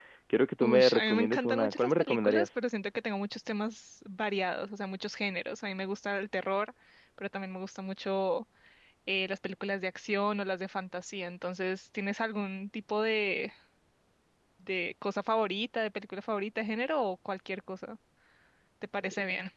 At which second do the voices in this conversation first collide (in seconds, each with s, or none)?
0.6 s